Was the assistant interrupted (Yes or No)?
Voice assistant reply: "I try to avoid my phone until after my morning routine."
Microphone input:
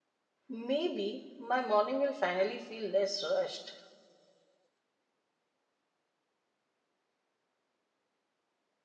Yes